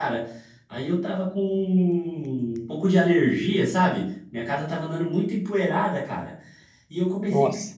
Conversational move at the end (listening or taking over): listening